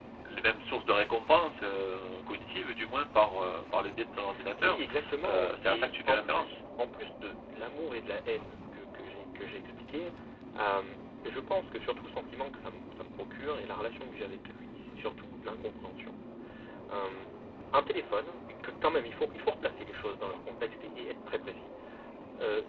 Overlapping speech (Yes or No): Yes